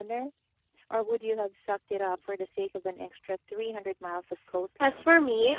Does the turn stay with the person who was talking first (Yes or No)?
No